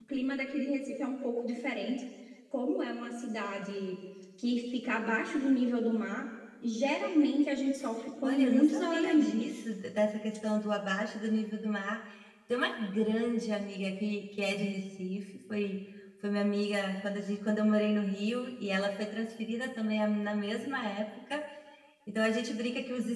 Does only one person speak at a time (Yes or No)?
No